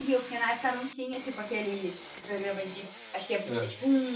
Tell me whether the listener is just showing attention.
Yes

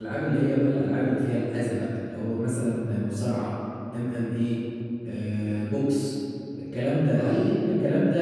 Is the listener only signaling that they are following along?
Yes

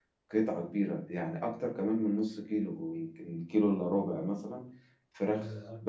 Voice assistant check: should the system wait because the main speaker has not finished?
Yes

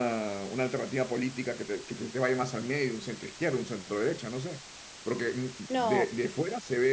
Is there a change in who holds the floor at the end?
No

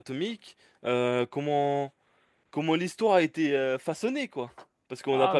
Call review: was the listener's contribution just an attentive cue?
No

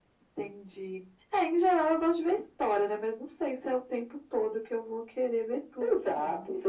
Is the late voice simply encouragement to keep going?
No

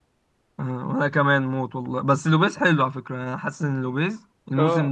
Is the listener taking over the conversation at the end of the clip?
Yes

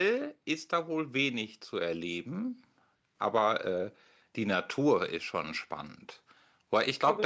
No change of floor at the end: No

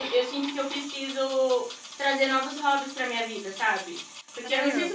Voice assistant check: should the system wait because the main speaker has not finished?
Yes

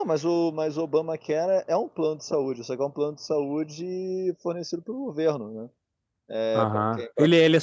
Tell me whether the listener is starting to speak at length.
Yes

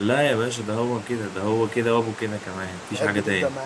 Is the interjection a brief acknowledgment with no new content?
No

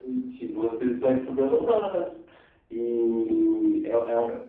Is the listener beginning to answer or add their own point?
No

